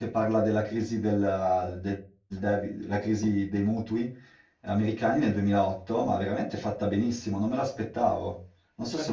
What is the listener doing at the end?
taking over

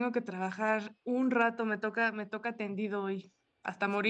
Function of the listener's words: taking over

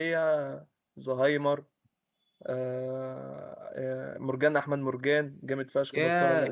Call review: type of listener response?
taking over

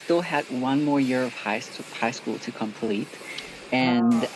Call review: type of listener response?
listening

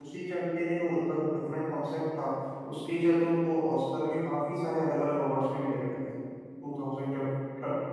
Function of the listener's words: listening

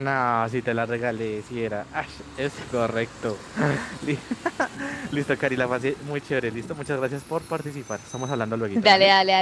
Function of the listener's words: taking over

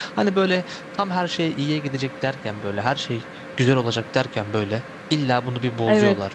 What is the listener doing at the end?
listening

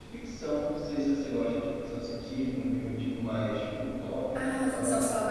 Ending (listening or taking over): taking over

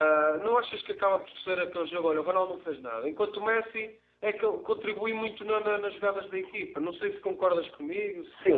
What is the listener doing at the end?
taking over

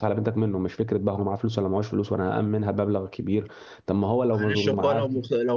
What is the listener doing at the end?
taking over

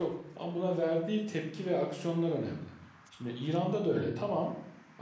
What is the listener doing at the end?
listening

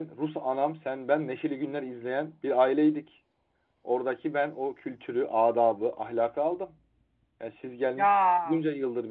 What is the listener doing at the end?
listening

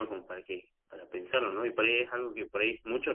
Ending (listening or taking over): listening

